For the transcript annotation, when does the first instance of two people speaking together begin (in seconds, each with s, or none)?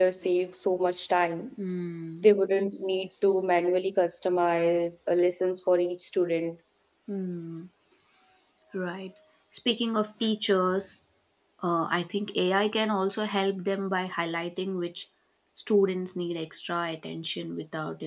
none